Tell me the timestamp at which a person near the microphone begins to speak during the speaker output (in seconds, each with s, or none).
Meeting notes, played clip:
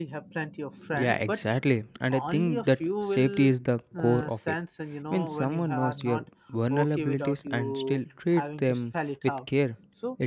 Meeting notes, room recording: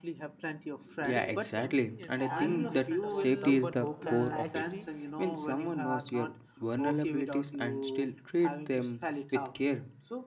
1.0 s